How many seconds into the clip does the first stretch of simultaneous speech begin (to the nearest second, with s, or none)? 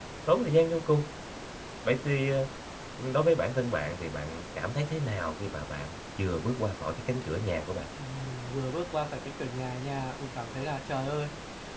none